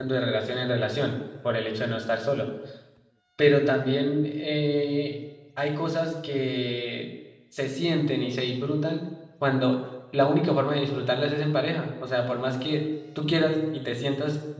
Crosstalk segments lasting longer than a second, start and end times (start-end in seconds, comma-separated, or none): none